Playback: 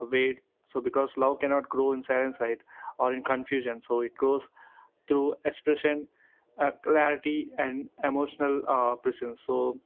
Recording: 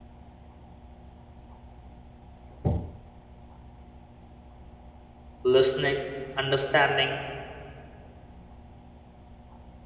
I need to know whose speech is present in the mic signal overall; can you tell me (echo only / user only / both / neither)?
user only